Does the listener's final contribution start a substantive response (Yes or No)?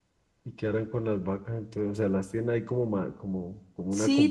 Yes